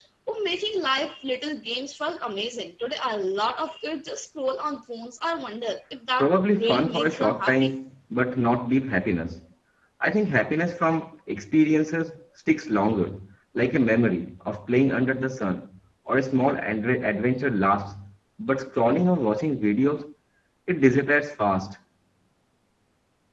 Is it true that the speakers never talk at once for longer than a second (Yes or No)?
No